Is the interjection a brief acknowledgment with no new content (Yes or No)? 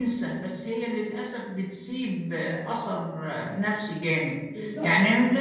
Yes